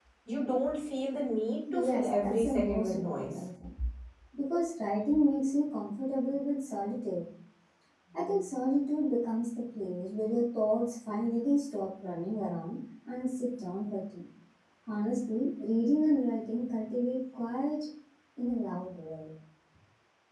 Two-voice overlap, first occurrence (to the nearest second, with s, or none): 2 s